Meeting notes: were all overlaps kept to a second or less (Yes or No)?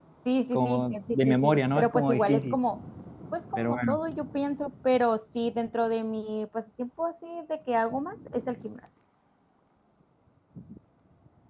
No